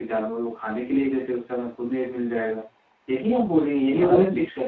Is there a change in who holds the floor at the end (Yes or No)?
No